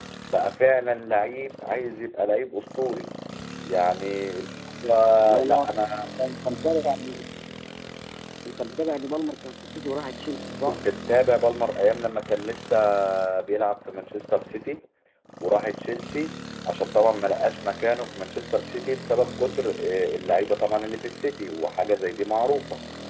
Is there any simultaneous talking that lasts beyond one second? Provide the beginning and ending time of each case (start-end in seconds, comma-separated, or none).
none